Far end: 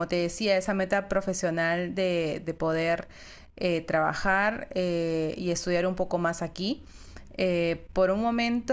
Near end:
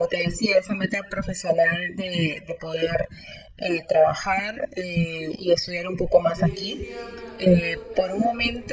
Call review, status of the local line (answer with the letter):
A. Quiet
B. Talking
B